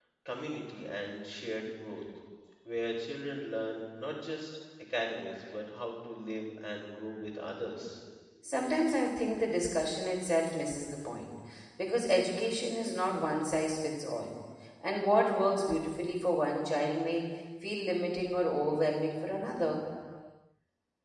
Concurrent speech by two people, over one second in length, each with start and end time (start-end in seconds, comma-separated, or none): none